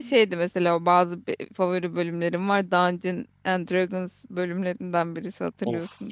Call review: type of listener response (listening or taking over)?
taking over